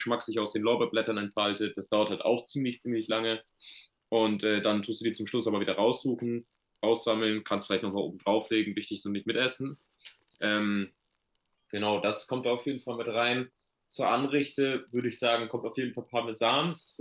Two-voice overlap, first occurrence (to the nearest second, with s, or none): none